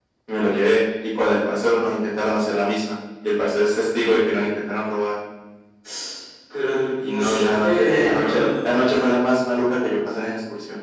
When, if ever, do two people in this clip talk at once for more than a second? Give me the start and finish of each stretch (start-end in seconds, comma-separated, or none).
7.1-8.4